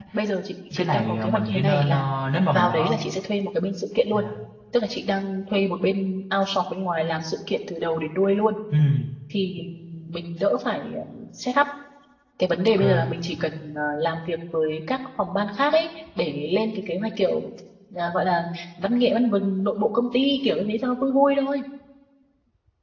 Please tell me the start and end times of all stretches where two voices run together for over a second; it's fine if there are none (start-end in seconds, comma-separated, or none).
0.7-2.0